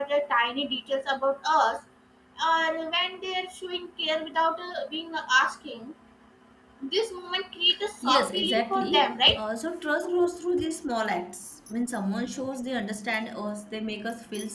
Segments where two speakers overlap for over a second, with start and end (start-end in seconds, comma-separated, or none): 8.0-9.4